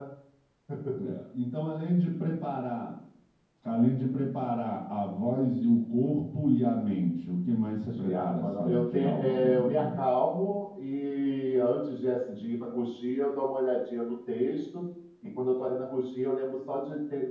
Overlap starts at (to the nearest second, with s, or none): 8 s